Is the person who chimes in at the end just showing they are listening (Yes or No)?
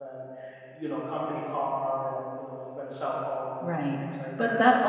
No